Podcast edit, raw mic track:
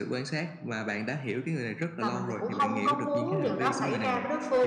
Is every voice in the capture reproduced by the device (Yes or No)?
No